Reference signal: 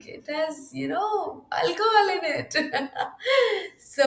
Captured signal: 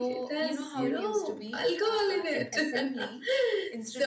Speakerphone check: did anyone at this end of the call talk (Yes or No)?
Yes